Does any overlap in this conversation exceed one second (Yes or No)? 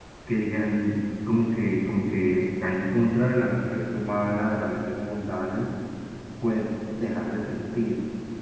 No